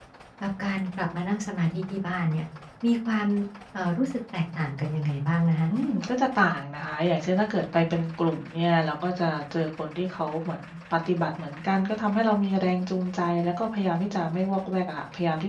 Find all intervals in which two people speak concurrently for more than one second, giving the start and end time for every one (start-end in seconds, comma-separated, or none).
none